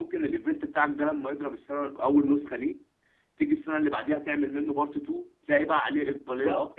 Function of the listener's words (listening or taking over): taking over